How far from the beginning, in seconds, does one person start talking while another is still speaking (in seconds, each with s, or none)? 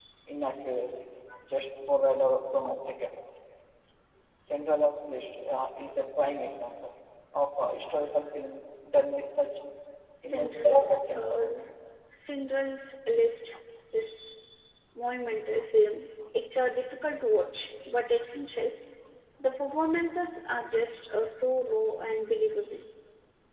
10.2 s